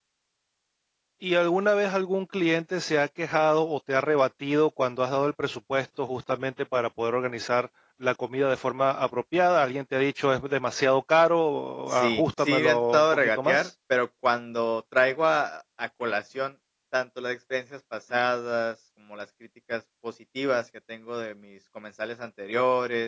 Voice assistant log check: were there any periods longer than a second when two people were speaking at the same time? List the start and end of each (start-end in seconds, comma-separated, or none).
11.9-13.7